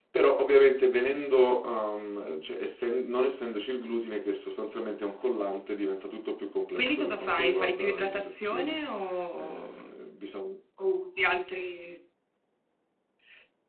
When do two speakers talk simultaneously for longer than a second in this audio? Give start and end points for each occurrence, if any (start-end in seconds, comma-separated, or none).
6.8-8.7